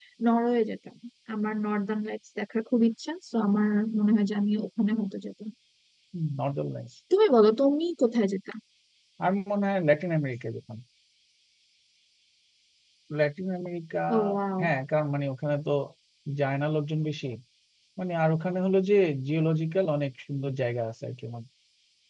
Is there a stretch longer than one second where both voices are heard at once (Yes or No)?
No